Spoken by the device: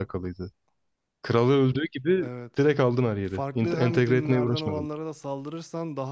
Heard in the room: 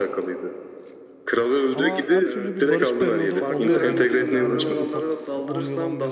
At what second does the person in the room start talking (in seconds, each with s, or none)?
1.7 s